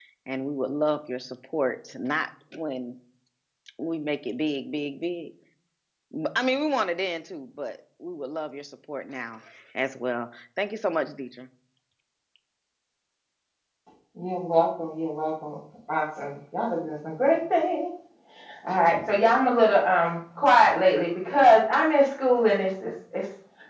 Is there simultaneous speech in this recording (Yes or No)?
No